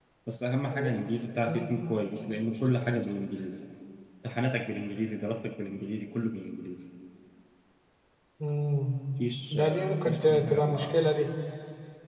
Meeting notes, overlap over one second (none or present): present